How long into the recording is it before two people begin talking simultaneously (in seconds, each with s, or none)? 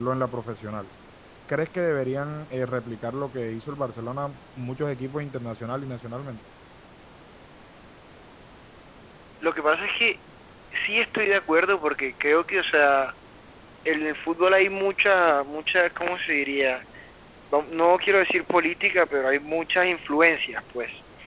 none